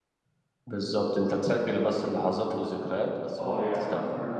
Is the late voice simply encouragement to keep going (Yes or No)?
No